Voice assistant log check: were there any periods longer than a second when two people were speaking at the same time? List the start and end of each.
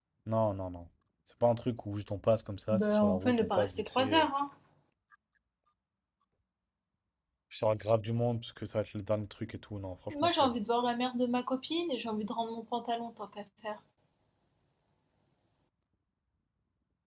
2.7-4.3

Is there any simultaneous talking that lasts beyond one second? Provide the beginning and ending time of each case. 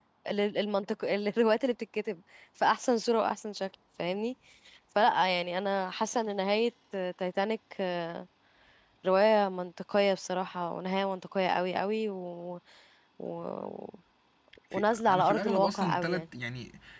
14.7-16.2

